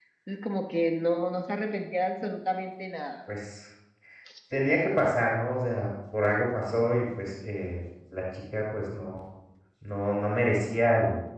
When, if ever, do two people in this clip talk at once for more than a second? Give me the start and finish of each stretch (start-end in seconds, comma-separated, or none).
none